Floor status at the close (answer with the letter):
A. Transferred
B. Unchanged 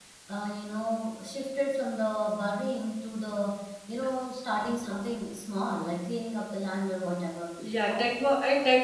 A